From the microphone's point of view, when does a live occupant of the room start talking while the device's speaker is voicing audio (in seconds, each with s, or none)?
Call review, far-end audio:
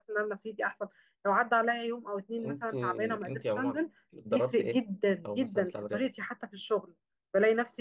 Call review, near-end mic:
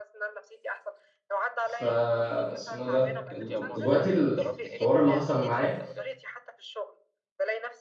1.6 s